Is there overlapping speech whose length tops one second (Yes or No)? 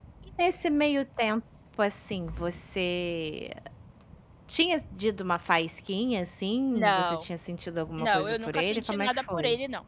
Yes